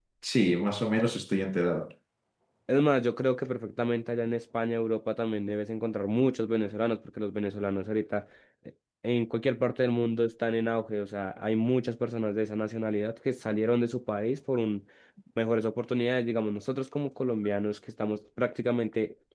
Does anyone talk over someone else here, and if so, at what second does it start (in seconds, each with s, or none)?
none